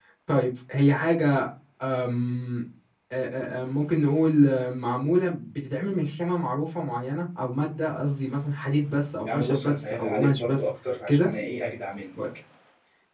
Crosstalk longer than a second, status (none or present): present